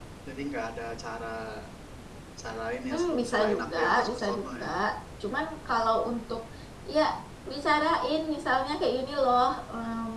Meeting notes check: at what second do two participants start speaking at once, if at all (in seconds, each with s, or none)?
2.9 s